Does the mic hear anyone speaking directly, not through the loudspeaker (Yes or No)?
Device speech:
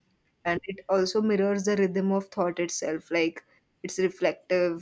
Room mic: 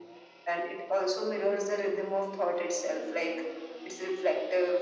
No